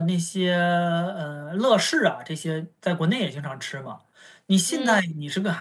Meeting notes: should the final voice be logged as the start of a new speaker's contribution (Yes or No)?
No